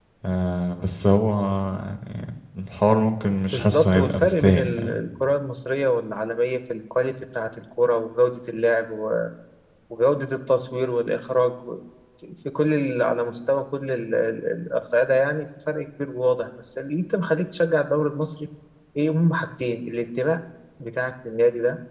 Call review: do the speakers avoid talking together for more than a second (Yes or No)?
No